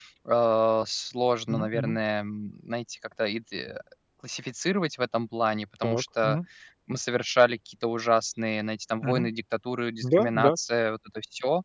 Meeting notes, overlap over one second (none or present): none